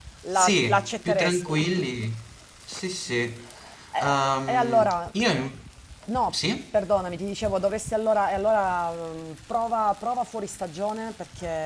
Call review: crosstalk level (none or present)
present